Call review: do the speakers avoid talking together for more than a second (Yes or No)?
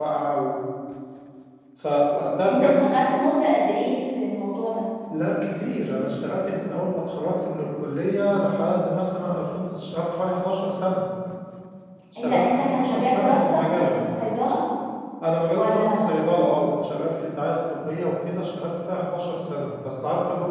No